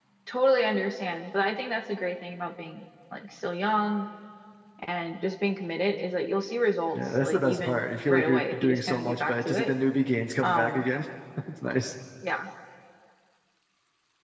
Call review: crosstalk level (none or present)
present